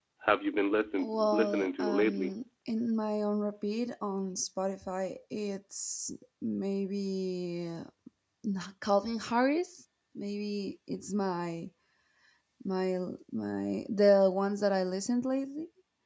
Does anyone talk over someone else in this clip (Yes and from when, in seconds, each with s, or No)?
Yes, from 1.0 s